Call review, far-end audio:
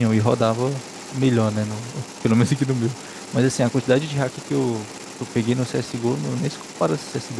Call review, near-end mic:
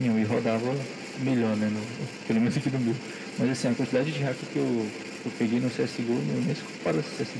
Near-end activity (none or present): none